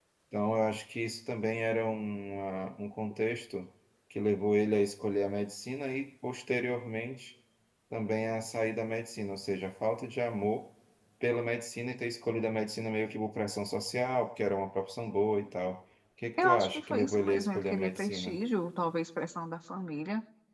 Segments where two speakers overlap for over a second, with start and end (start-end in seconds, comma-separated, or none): 16.4-18.4